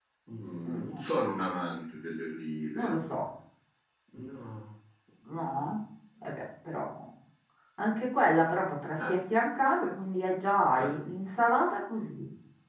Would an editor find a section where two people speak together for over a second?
No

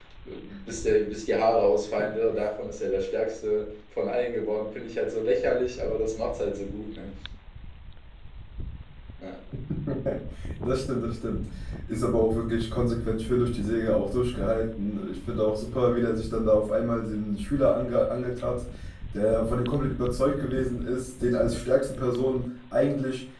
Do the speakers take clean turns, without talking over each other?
Yes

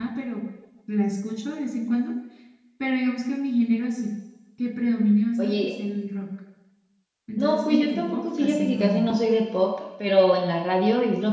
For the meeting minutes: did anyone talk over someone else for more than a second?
Yes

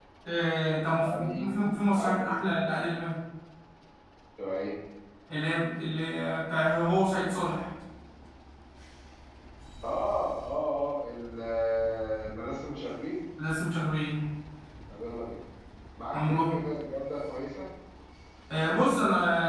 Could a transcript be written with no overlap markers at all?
No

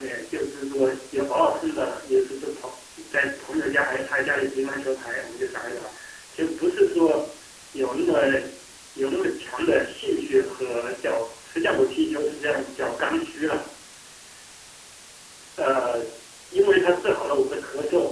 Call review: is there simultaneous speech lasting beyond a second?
No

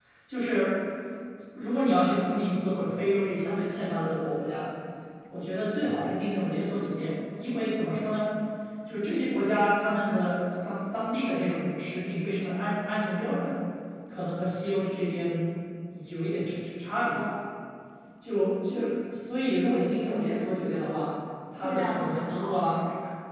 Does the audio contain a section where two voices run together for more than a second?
Yes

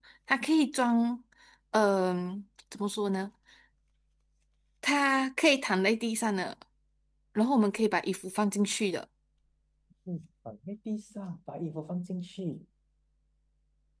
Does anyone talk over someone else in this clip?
No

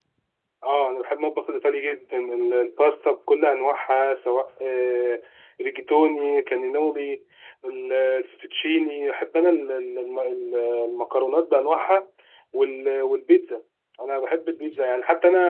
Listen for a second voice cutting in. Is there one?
No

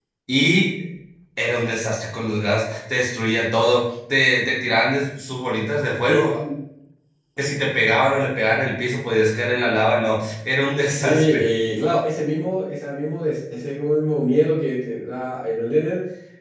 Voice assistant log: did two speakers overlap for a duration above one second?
No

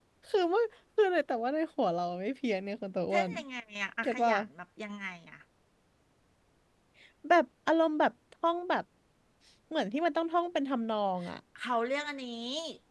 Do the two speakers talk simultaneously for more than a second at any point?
No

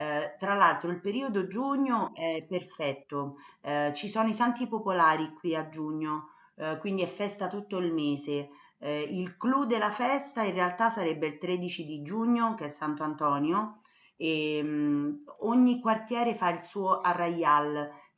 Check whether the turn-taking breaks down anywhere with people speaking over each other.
No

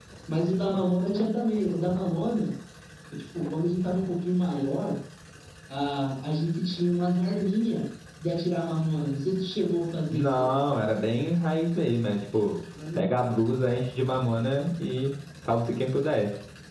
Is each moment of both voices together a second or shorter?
Yes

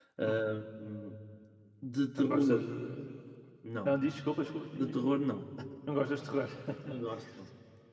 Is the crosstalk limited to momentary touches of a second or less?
Yes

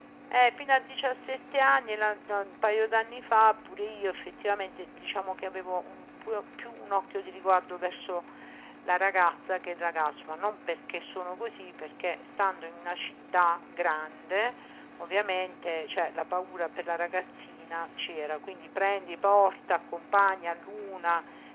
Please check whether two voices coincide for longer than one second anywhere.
No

